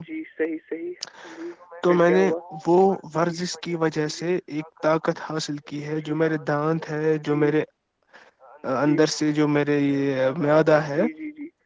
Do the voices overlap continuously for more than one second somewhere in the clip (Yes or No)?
No